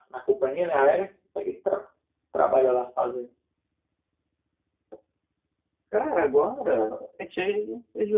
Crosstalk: none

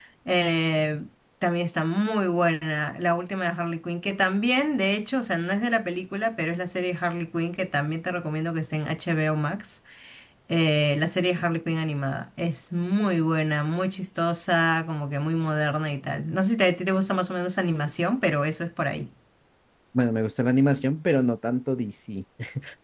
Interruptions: none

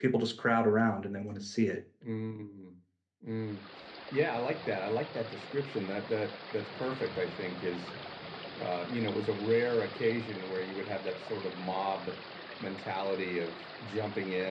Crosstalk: none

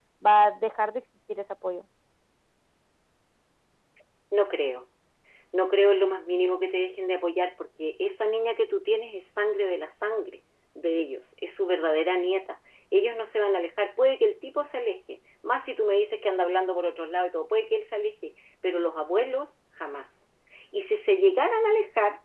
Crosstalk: none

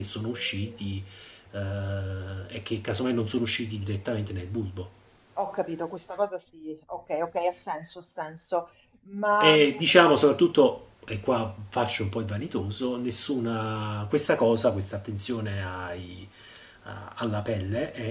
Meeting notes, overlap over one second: none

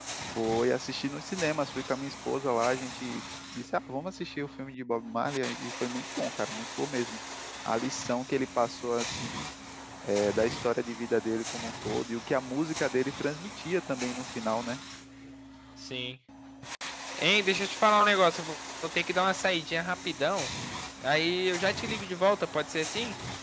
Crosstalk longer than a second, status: none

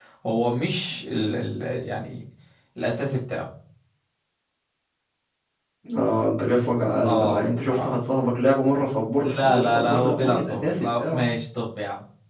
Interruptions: present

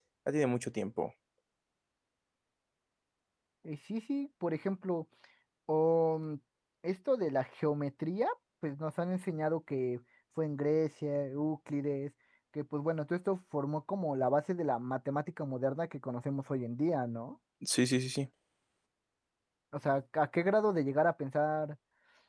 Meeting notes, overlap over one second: none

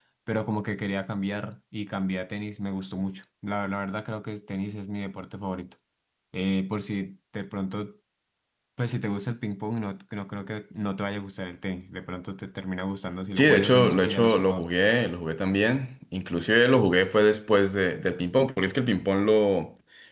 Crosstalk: present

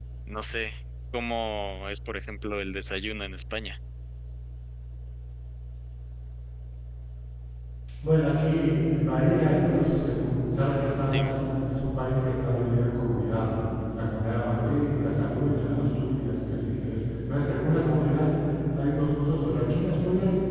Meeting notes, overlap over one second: none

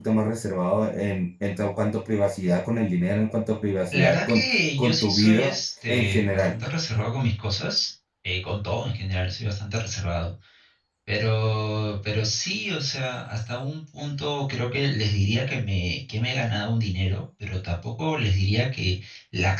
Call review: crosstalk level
present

